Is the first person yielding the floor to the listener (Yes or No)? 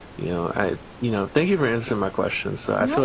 No